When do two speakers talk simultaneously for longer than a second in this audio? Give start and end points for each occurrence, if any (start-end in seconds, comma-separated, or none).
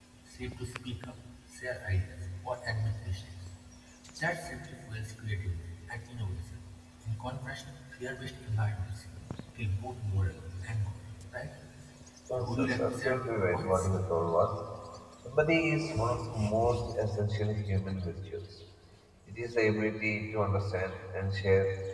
12.4-13.9